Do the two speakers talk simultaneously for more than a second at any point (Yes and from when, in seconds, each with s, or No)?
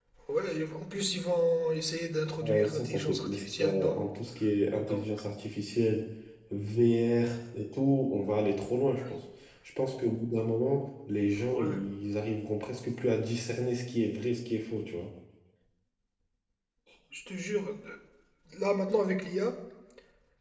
Yes, from 2.4 s